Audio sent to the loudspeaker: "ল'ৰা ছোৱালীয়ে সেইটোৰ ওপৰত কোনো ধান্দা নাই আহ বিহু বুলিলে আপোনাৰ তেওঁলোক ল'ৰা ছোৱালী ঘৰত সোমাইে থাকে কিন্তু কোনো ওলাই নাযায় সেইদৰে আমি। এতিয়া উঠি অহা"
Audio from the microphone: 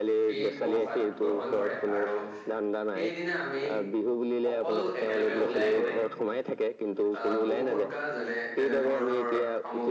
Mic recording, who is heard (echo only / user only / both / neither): both